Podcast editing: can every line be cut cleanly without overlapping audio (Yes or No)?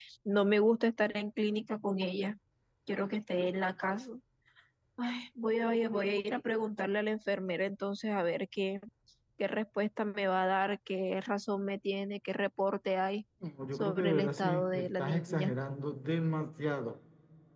No